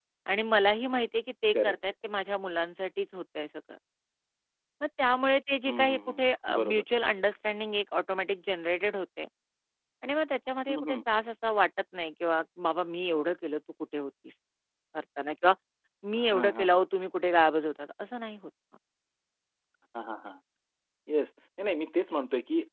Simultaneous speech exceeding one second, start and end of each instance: 5.7-7.1

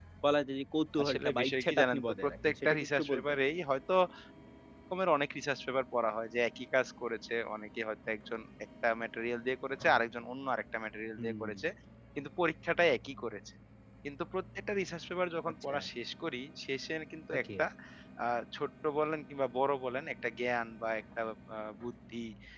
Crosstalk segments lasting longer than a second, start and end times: 1.0-3.4

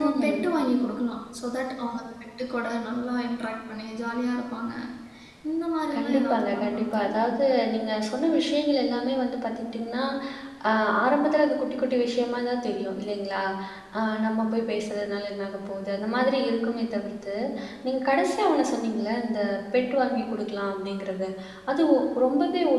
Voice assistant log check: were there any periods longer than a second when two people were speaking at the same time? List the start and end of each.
5.9-7.2

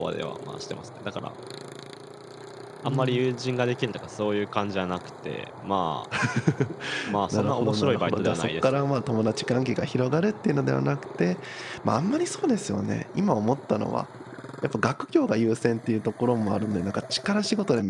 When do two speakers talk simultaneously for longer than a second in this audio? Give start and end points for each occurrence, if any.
7.3-8.8

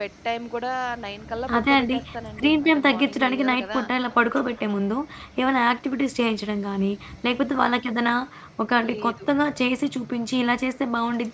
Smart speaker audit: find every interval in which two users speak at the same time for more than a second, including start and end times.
1.6-3.8

